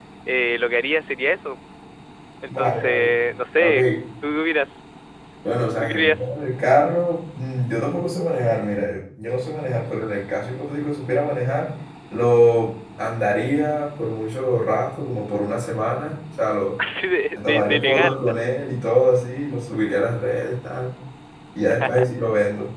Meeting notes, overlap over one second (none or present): present